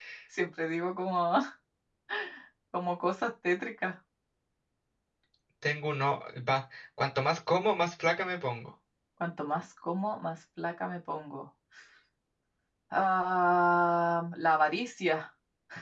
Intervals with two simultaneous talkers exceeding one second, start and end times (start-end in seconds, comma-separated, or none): none